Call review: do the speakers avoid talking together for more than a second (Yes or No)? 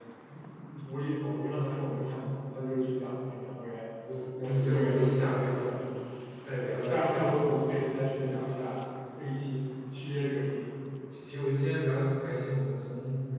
No